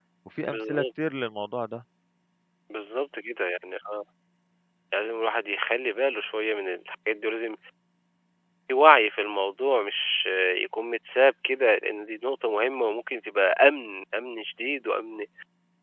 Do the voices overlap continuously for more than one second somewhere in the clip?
No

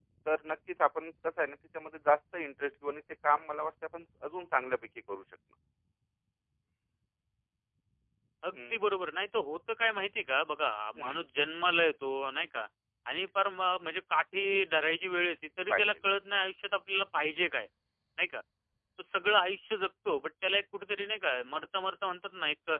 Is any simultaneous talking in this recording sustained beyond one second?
No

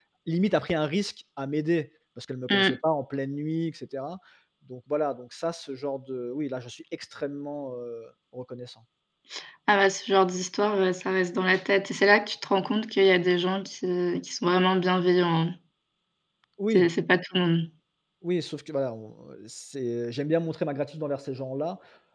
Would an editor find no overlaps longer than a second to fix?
Yes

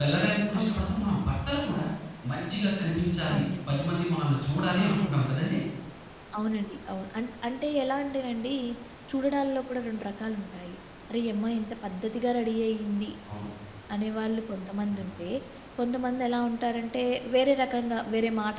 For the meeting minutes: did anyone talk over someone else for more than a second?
No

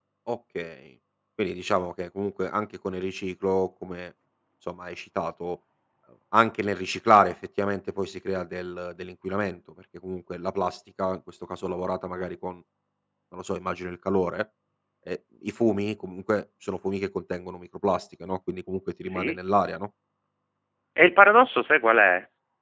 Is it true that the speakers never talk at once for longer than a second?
Yes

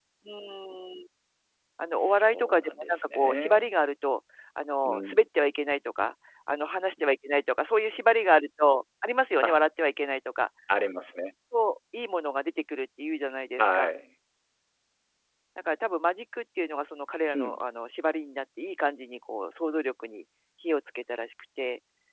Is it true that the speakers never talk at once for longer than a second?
No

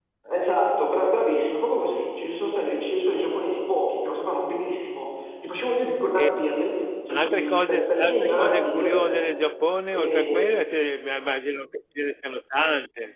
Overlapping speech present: Yes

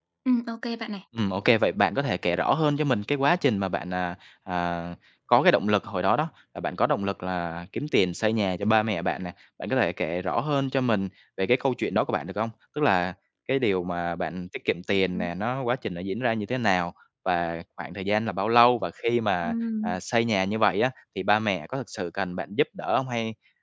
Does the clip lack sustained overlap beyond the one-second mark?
Yes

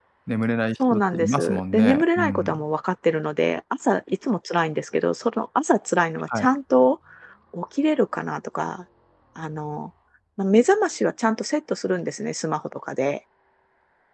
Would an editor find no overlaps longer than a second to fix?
No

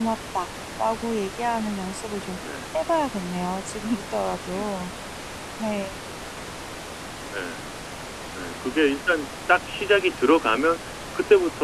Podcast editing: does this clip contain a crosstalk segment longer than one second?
No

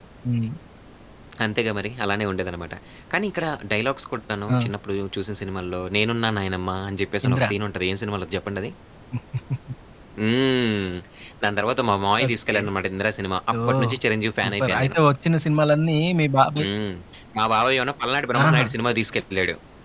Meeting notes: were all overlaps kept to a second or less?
Yes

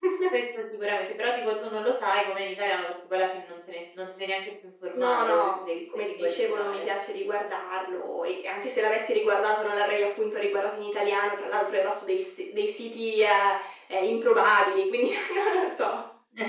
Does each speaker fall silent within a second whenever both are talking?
No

